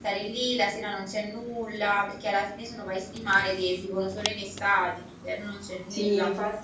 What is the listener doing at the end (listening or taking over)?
taking over